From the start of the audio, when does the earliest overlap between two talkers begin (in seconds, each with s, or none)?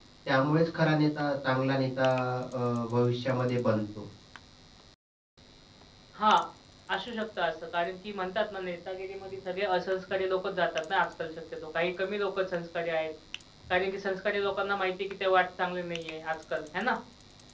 none